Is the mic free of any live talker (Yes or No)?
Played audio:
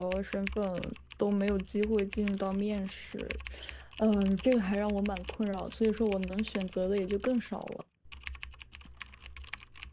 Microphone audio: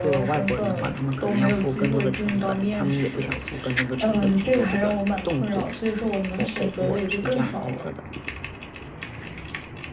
No